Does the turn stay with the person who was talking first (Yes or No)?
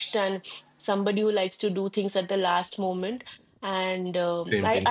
Yes